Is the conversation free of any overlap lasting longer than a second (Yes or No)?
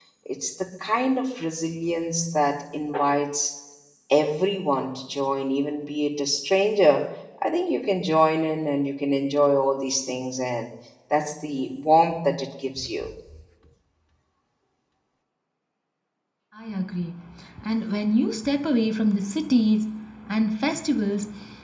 Yes